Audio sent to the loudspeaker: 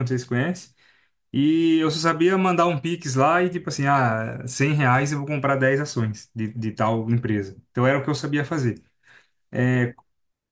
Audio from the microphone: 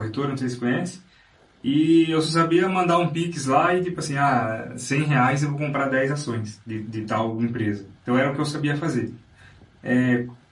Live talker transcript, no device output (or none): none